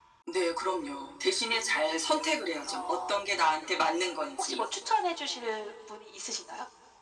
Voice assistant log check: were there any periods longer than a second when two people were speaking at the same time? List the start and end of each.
none

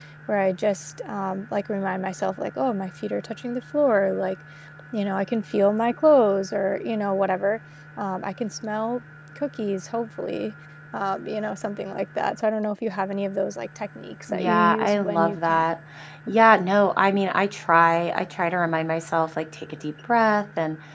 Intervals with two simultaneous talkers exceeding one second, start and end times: 14.3-15.6

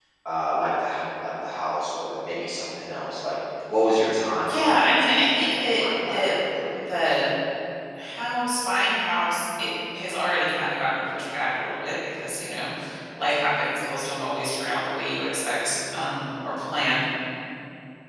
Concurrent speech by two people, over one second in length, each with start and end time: 4.4-6.3

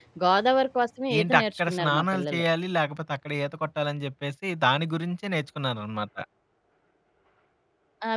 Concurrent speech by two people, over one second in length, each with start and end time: 1.2-2.5

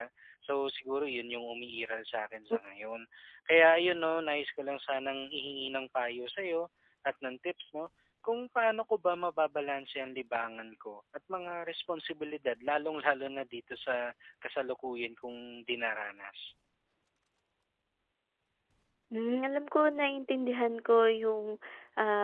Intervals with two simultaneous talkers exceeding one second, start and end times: none

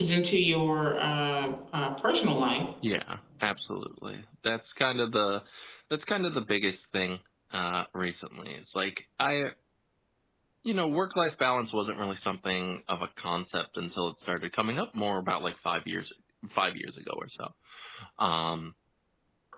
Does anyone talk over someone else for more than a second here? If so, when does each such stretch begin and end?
none

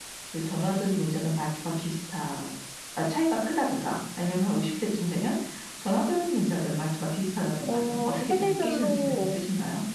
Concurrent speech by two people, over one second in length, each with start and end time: 7.7-9.4

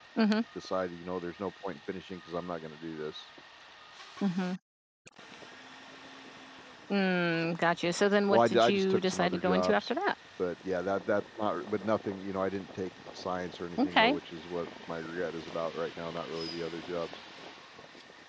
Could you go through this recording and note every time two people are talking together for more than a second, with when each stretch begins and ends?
8.3-9.9

